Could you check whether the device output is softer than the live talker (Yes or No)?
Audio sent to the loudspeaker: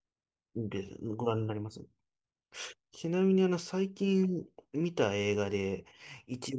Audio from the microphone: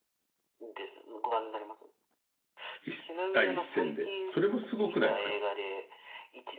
Yes